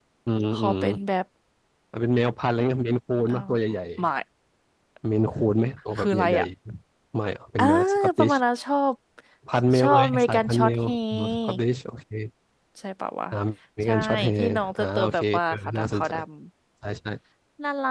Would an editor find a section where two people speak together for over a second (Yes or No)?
Yes